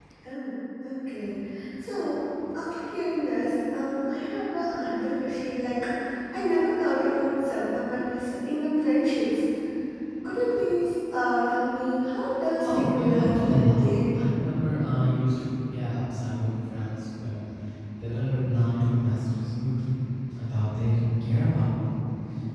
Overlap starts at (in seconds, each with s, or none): 12.6 s